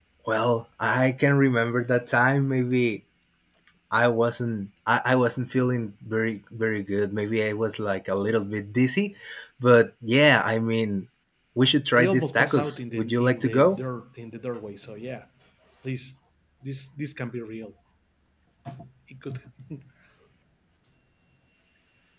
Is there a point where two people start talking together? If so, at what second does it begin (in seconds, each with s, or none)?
11.9 s